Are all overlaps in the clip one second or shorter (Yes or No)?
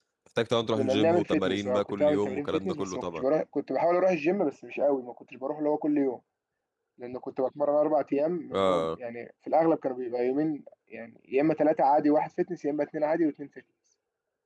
No